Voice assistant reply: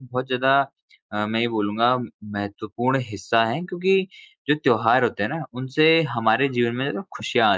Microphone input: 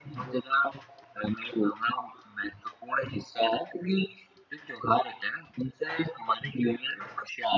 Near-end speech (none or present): none